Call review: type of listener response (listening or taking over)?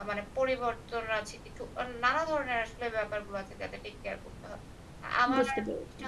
listening